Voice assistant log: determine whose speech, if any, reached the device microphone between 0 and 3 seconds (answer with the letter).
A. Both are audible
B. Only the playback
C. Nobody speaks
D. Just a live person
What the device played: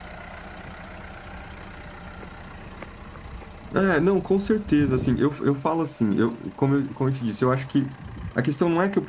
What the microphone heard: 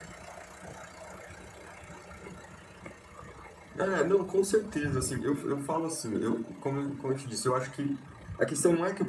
C